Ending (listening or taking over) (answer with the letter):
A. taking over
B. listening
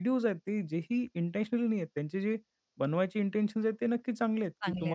B